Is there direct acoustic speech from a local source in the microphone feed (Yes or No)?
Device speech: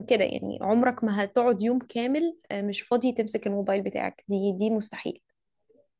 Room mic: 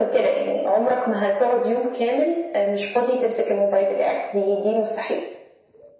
No